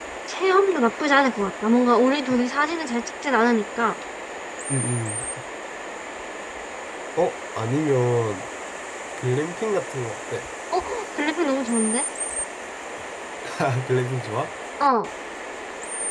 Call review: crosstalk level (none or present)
none